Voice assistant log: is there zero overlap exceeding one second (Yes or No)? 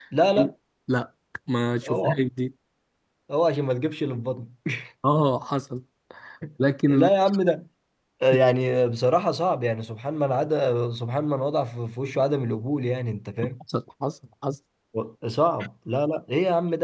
Yes